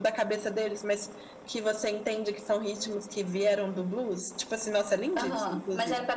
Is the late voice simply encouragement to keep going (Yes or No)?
No